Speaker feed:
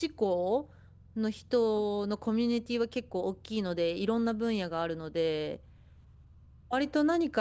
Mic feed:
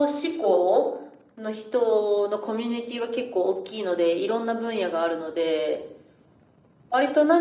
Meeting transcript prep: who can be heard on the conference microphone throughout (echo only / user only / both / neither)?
echo only